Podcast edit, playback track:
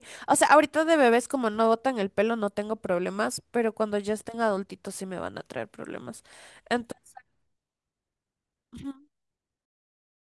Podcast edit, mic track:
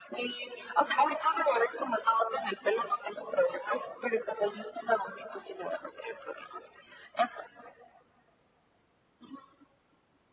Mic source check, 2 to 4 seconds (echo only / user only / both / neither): echo only